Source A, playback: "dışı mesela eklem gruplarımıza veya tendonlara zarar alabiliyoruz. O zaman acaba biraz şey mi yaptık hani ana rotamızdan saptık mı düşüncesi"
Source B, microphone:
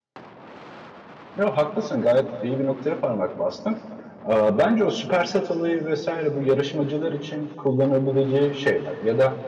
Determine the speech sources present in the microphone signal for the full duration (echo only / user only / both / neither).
user only